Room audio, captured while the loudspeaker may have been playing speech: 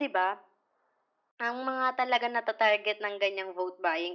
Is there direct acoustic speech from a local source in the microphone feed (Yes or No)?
No